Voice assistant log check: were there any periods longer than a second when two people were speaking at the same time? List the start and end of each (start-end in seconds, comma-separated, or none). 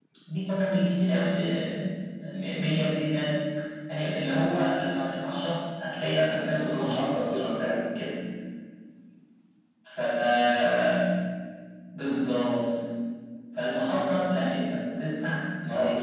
6.3-7.7